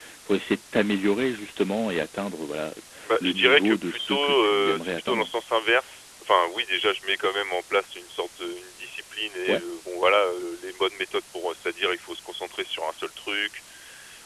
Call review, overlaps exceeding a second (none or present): present